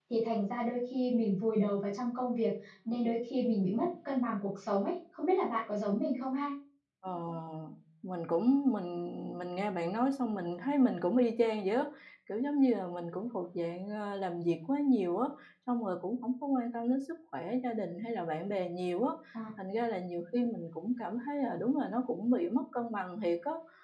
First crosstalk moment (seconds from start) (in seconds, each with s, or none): none